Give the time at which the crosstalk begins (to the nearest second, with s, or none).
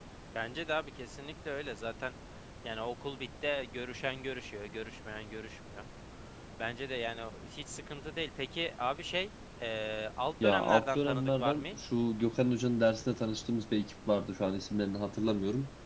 10 s